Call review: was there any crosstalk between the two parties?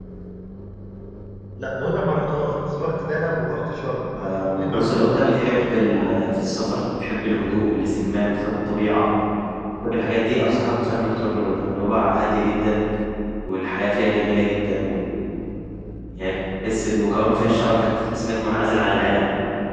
Yes, from 4.2 s

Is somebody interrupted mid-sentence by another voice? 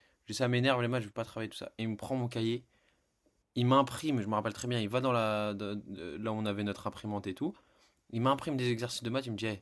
No

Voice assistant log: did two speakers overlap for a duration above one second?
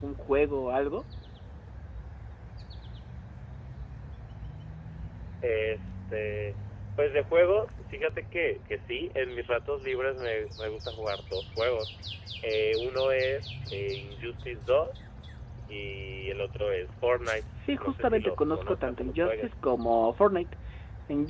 Yes, from 17.8 s

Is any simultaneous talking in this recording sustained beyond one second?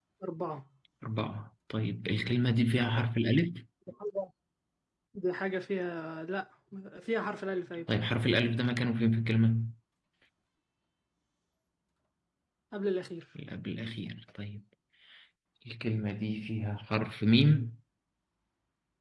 No

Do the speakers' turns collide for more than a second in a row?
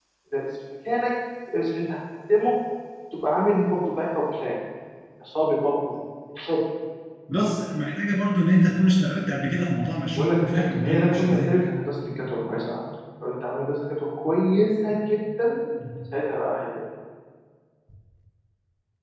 Yes, from 10.2 s

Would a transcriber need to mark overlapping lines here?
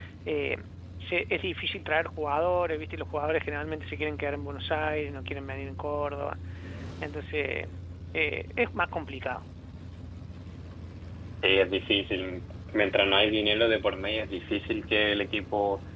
No

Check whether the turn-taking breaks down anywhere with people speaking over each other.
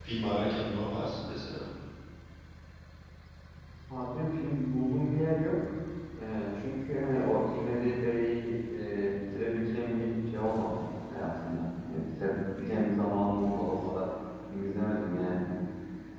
No

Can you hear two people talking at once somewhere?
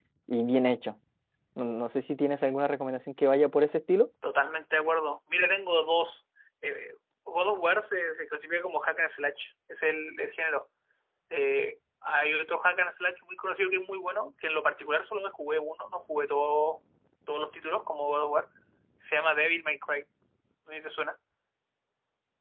No

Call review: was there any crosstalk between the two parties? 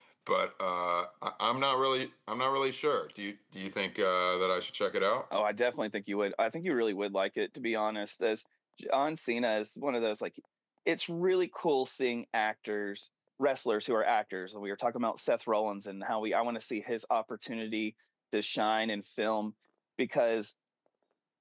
No

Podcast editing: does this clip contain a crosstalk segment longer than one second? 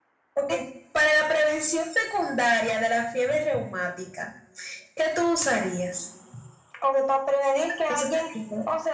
No

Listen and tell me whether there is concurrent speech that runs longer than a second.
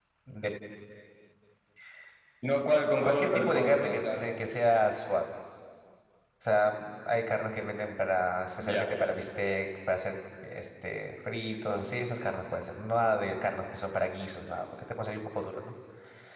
Yes, from 3.0 s

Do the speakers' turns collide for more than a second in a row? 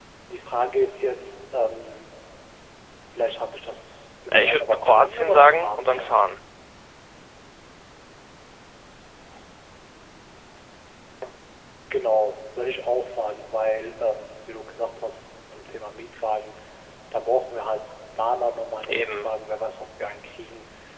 Yes, from 4.3 s

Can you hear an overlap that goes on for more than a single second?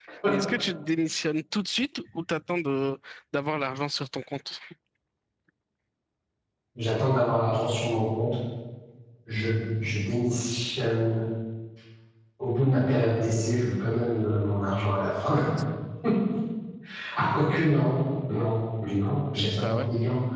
No

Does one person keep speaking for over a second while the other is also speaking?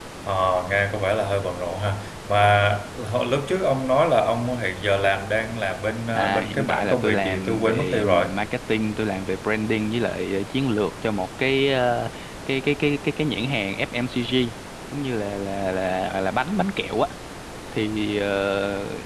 Yes, from 6.2 s

